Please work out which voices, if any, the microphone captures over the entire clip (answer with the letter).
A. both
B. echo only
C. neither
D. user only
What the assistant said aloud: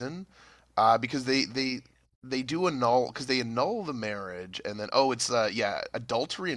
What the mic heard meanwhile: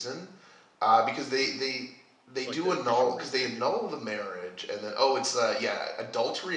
A